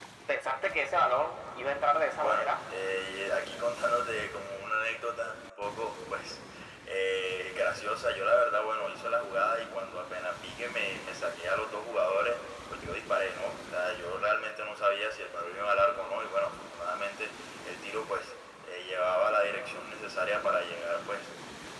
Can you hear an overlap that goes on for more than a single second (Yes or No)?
No